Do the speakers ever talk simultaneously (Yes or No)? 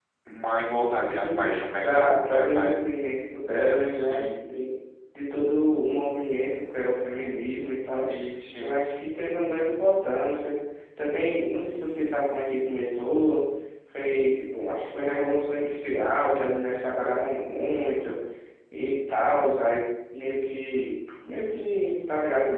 Yes